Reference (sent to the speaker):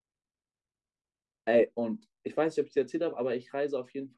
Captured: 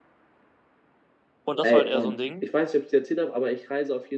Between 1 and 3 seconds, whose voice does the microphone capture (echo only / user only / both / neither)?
both